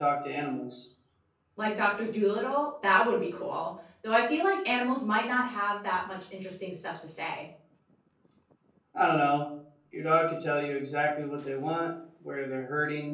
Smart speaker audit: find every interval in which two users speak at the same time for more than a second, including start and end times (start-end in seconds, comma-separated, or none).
none